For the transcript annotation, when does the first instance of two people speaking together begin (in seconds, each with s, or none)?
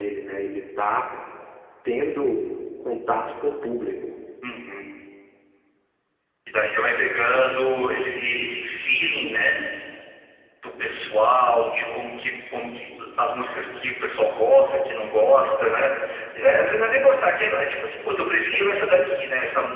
none